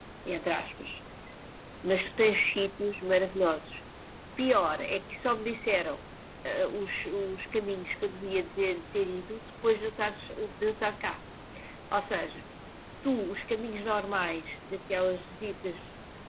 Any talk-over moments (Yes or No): No